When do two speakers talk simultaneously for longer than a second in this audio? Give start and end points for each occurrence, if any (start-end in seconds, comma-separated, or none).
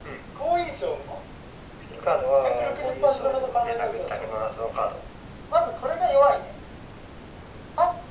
2.4-4.3